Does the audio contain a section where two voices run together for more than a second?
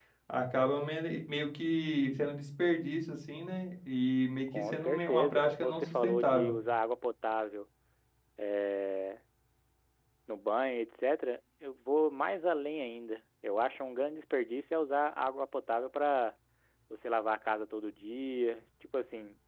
Yes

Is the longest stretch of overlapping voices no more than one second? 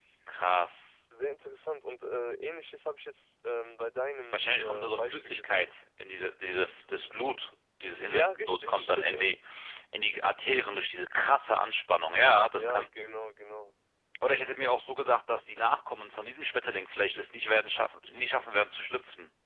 No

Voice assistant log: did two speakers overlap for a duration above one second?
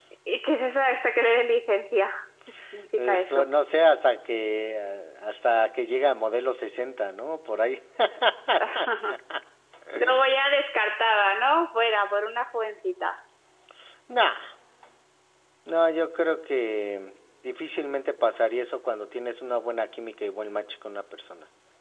No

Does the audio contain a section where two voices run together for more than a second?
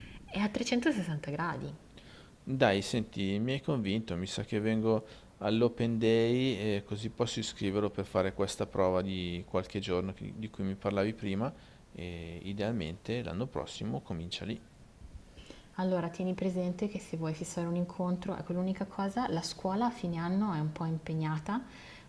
No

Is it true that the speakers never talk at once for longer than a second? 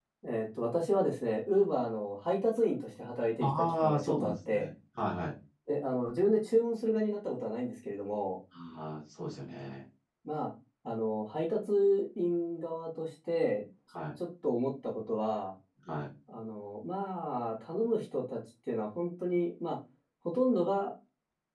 No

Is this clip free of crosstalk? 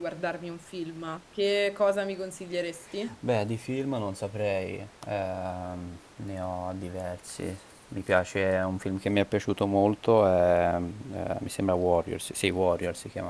Yes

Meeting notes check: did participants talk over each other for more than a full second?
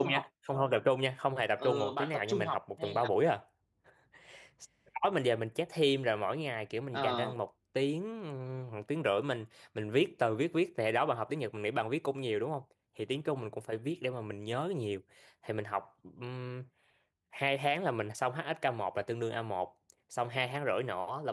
Yes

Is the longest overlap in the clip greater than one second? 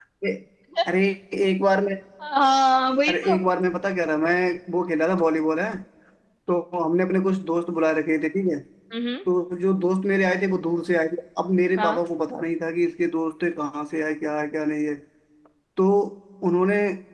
No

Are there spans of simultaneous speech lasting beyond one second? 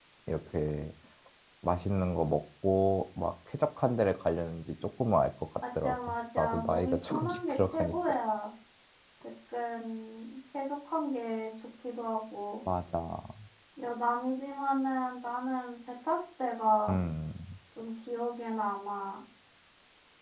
Yes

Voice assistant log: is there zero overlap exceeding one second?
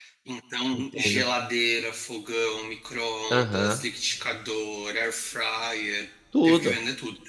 Yes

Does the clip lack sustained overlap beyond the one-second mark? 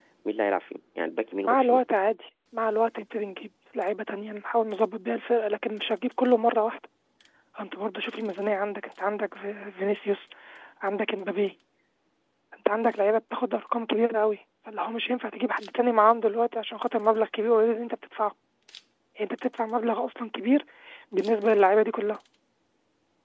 Yes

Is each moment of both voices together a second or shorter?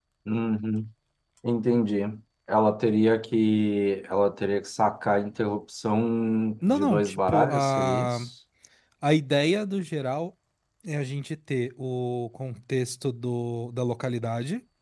No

